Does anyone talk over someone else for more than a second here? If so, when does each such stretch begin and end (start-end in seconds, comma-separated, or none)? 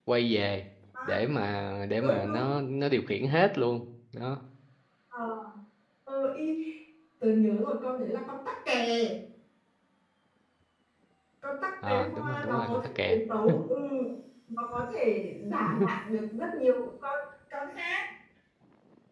11.8-13.2